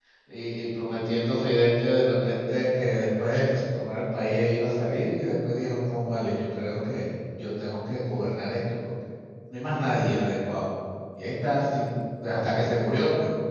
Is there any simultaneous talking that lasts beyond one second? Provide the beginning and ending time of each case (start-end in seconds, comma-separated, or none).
none